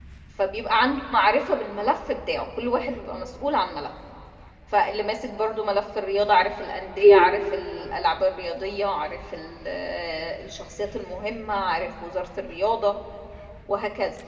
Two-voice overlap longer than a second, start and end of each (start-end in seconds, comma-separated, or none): none